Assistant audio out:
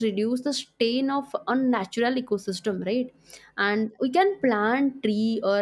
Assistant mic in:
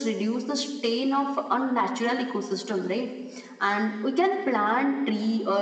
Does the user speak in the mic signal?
No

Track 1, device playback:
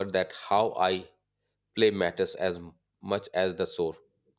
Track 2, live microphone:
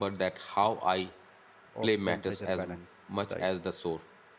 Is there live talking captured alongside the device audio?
Yes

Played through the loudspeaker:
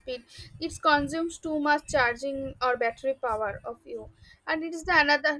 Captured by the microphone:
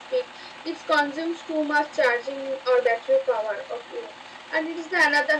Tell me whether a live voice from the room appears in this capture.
No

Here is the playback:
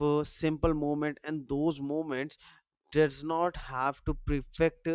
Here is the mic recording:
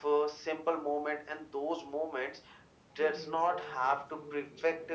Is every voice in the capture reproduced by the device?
No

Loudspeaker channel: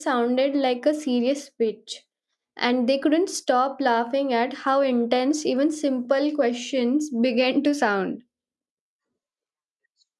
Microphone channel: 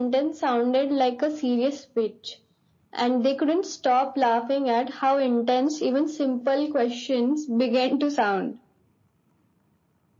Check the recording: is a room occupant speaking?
No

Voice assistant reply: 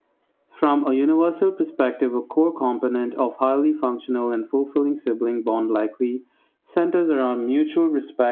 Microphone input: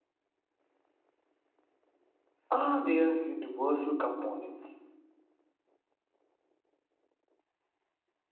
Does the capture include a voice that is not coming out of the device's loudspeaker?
Yes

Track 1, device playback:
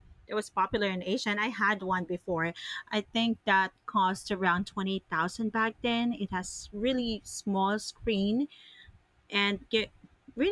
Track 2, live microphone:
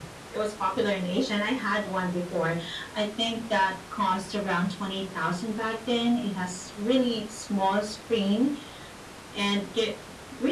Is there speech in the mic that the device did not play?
No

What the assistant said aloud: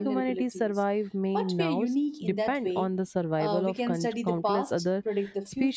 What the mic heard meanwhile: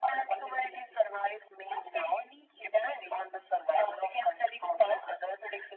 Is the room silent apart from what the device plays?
Yes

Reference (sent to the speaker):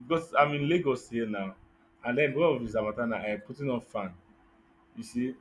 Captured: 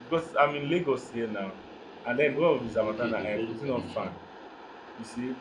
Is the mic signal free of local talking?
No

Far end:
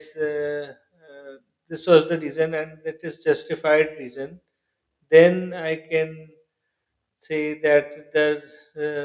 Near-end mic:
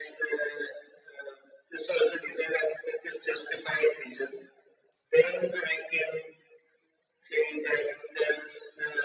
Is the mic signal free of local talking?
Yes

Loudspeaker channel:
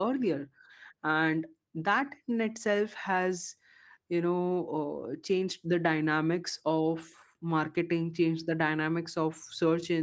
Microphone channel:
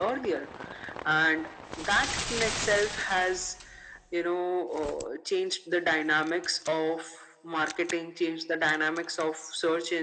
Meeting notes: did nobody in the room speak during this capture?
Yes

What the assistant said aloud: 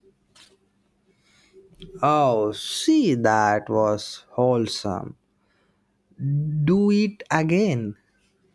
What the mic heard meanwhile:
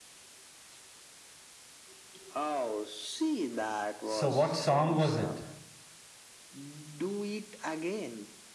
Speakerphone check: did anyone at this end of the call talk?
Yes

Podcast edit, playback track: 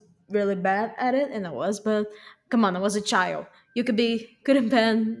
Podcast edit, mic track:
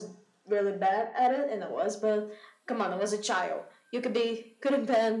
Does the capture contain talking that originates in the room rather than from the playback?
No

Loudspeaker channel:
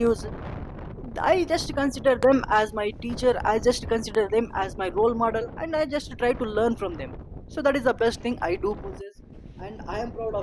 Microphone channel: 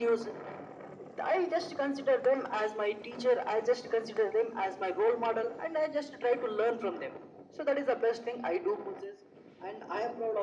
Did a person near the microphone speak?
No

